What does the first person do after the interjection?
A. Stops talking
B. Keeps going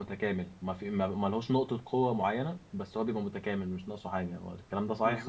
A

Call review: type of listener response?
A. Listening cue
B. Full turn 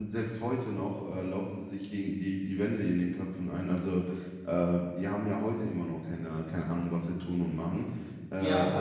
B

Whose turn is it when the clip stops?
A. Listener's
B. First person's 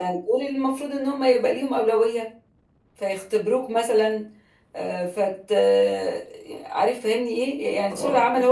B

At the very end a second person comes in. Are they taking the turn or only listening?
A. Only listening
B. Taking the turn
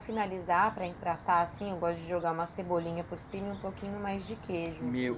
B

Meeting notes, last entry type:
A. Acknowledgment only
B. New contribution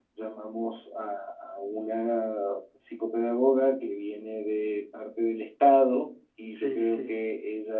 A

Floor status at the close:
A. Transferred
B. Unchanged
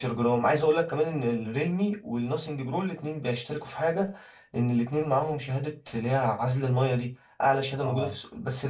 B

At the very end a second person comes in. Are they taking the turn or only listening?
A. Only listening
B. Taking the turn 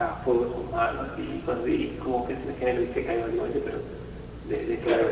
B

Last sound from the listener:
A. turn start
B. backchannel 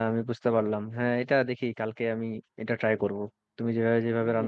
B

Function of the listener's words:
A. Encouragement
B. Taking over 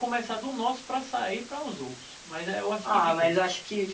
B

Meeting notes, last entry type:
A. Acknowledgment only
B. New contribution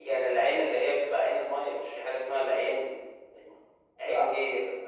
A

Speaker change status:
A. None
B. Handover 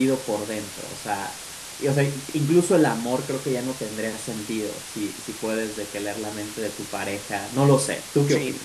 B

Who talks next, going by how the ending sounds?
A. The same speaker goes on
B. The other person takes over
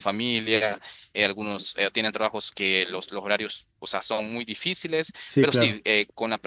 A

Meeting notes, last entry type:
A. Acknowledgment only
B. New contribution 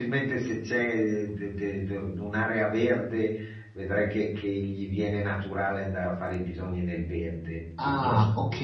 B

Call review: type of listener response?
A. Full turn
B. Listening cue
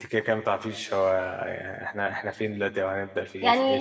A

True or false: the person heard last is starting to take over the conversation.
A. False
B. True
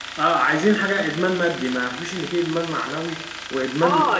B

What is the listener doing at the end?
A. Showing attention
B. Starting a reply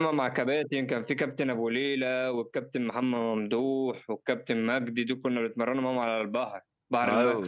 B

